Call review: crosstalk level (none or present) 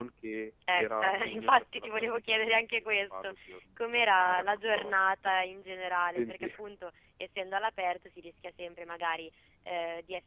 present